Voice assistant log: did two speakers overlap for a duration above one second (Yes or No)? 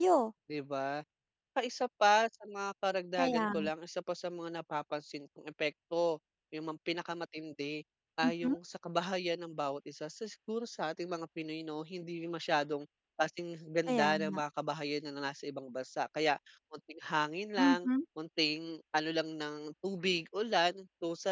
No